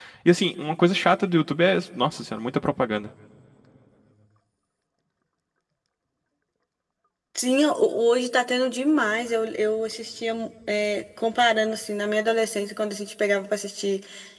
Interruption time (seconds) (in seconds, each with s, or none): none